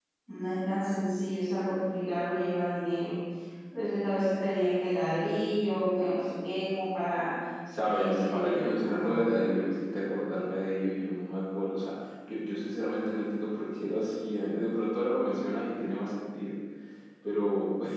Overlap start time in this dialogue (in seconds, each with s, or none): 7.8 s